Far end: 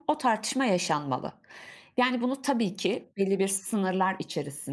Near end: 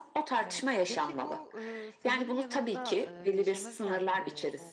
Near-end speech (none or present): present